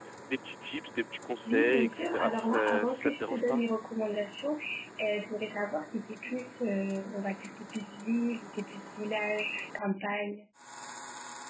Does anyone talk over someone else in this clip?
Yes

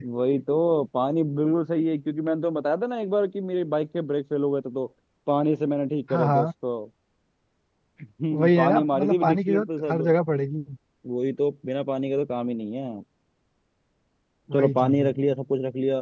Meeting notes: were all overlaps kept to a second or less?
No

